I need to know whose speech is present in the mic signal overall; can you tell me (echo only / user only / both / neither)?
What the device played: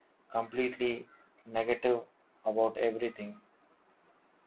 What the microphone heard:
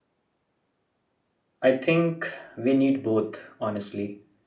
user only